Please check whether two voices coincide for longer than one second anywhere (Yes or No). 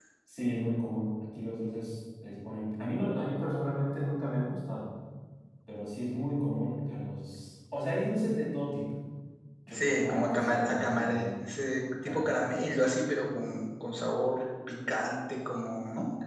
Yes